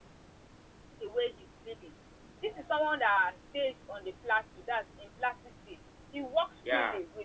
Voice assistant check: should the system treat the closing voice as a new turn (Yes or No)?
No